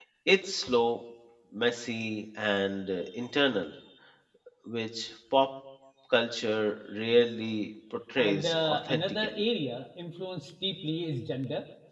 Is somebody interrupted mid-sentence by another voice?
Yes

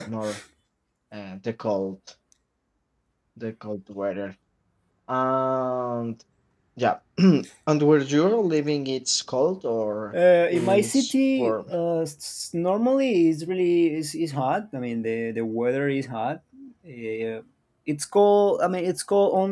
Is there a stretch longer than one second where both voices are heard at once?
Yes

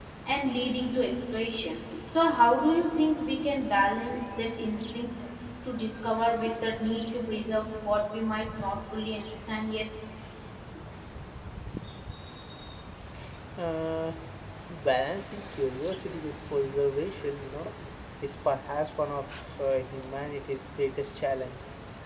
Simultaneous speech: No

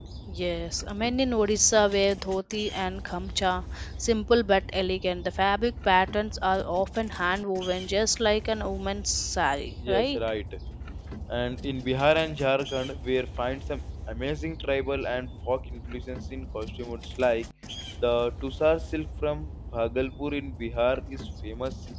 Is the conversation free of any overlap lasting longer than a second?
Yes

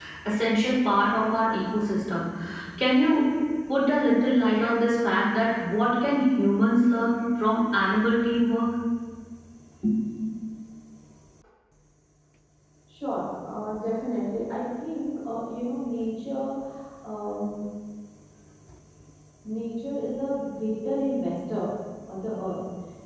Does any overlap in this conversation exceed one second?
No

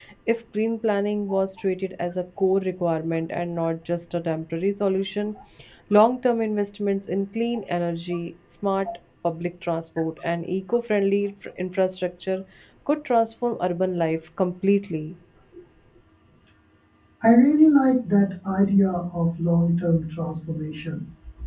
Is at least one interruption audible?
No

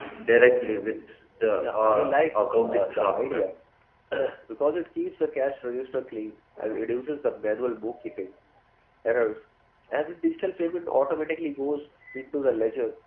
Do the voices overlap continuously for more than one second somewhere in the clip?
Yes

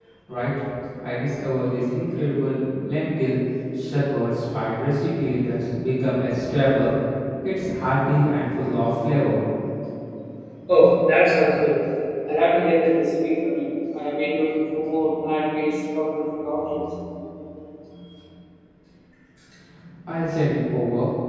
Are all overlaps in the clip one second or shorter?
Yes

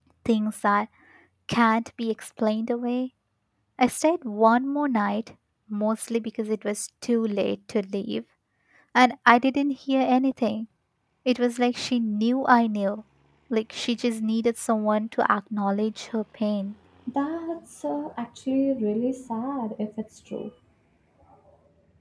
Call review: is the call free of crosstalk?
Yes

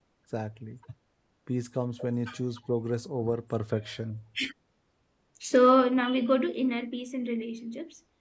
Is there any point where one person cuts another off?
No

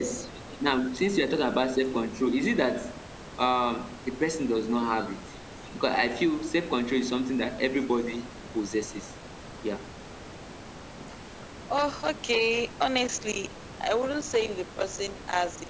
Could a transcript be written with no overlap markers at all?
Yes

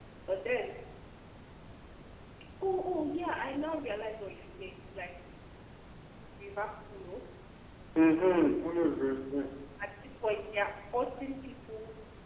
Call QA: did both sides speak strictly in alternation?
Yes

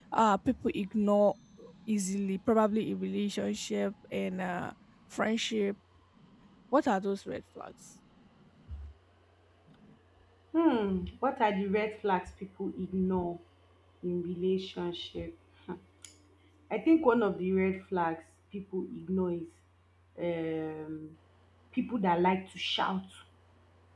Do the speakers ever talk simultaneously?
No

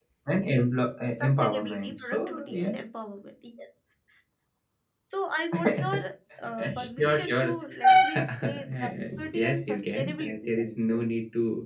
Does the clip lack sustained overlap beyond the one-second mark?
No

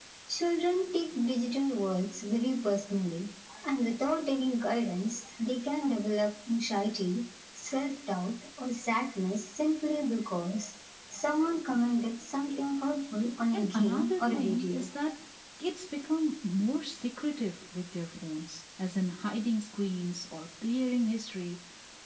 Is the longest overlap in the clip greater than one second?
Yes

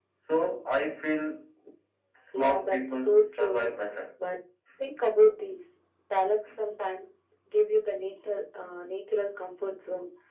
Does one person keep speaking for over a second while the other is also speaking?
Yes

